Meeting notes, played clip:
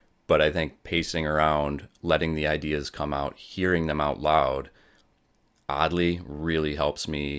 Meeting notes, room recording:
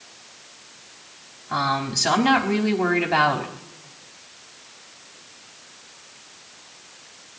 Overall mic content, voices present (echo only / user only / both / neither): user only